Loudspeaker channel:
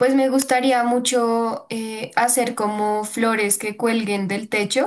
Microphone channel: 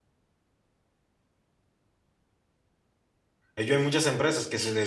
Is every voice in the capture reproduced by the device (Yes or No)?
No